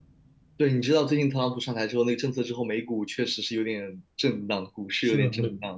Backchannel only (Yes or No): No